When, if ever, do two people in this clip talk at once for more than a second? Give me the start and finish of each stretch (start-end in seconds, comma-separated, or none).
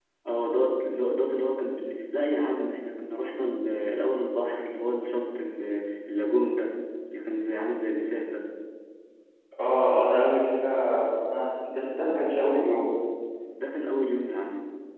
none